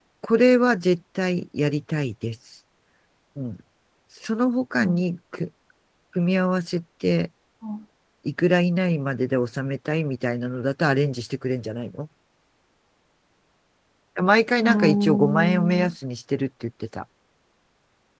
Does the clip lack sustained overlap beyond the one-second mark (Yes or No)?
No